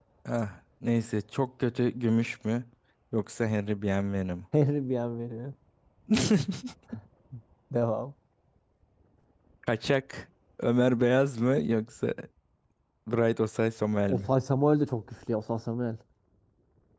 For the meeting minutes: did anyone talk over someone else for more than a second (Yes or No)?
No